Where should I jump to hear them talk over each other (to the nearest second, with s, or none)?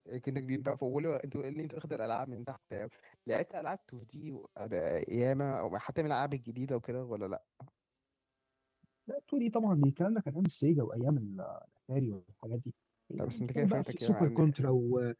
13 s